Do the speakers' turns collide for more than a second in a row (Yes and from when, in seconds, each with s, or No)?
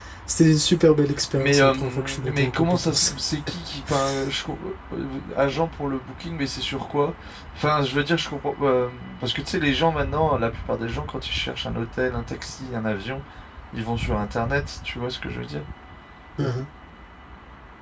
Yes, from 1.4 s